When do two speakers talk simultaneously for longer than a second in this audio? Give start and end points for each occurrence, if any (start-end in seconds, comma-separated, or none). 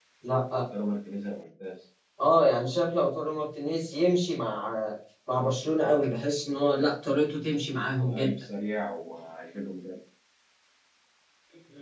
none